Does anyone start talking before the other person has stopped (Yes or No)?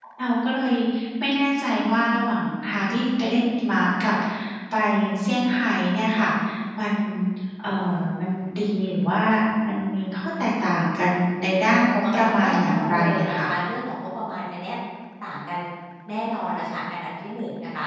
Yes